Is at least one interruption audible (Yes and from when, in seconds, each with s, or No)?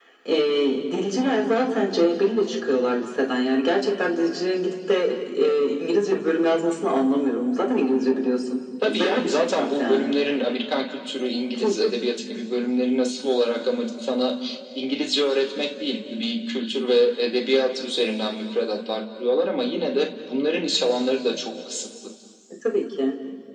Yes, from 8.9 s